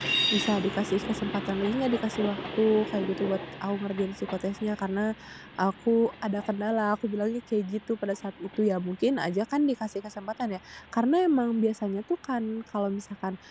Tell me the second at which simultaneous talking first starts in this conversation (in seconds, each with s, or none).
none